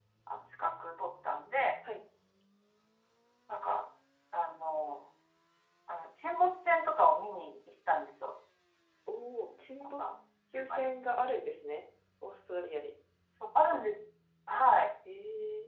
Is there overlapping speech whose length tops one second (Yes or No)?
No